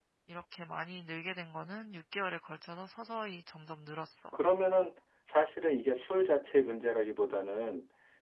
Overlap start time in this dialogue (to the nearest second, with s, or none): none